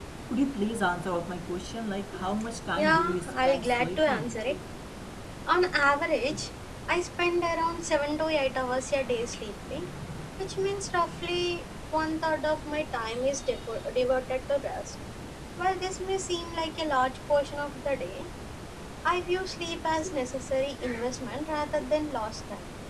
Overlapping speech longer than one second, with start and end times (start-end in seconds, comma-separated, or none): 2.8-4.4